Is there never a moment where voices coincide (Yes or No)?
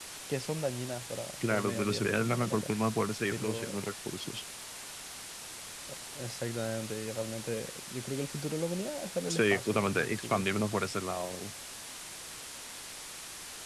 No